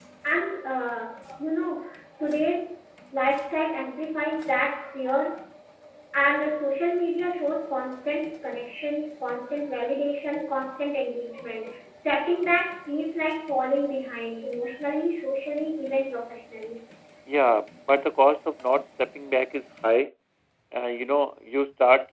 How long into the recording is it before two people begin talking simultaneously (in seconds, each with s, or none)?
none